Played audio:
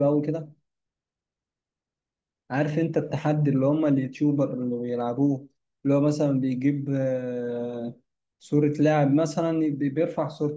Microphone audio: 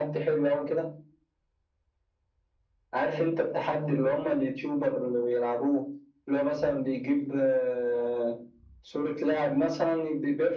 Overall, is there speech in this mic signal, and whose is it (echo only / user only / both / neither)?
echo only